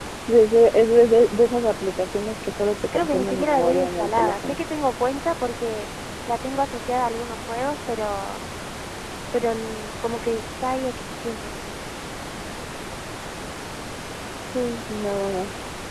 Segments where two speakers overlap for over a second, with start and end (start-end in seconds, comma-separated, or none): 2.9-4.6